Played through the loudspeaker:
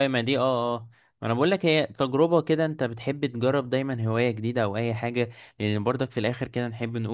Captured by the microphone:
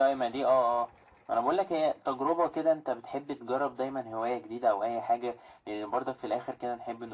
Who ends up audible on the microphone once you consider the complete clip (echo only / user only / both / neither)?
echo only